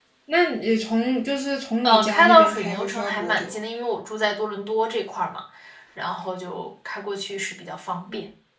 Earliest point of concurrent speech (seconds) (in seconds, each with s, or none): 1.8 s